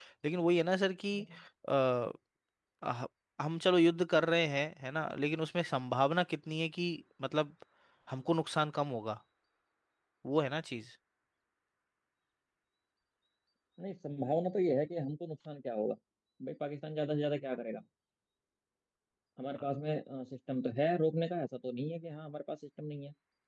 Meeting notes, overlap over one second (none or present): none